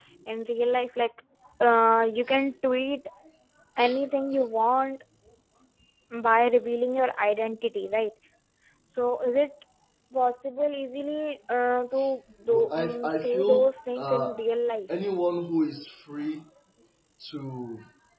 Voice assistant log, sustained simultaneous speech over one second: present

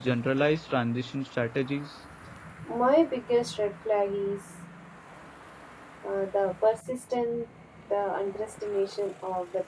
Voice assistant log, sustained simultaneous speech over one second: none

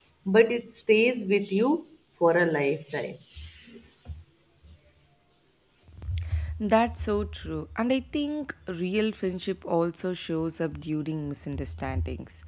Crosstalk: none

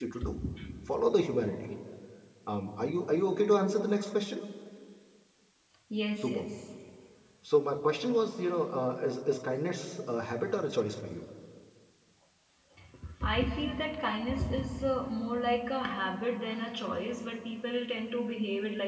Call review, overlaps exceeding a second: none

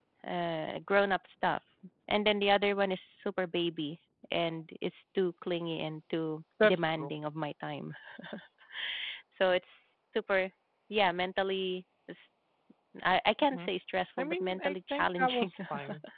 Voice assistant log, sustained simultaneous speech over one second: present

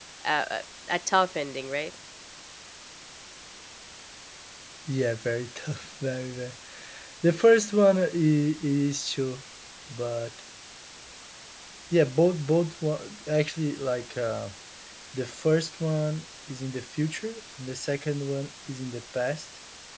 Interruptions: none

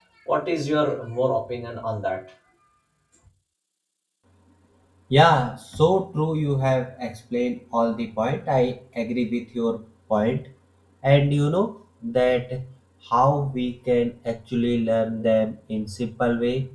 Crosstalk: none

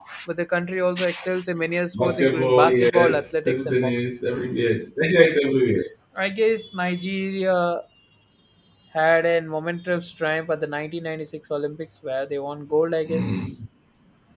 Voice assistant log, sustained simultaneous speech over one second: present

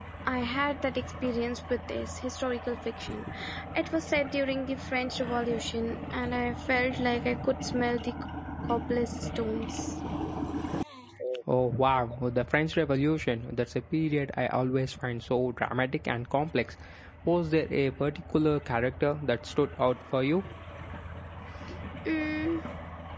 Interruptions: none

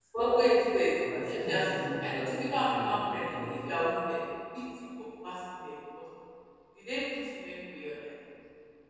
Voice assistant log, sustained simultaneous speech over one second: present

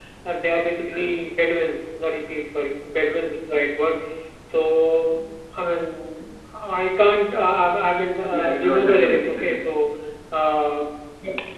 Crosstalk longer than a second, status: present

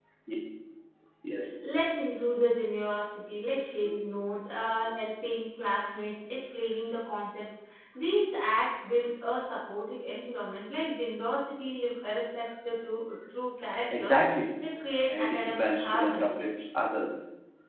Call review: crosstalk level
present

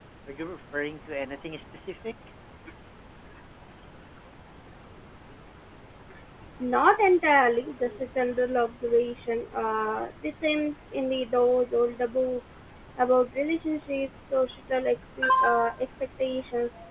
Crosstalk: none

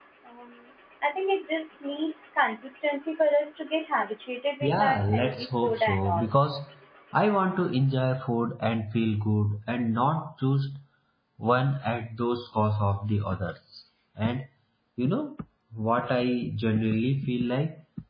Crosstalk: present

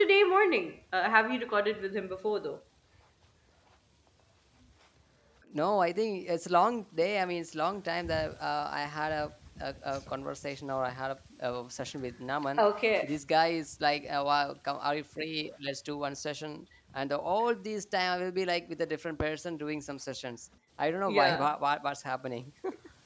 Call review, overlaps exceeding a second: none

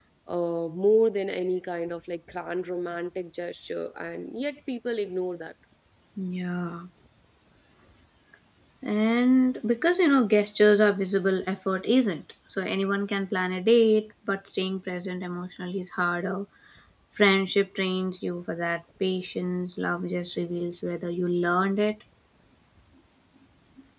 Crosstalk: none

